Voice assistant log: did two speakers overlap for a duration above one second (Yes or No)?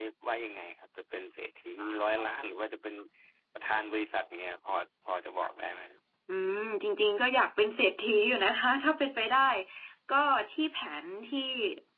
No